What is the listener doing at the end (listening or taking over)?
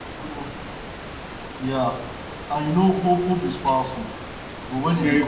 listening